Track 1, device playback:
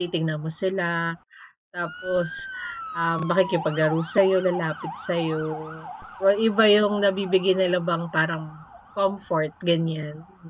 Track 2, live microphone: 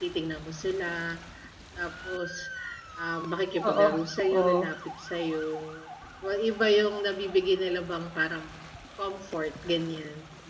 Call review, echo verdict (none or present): present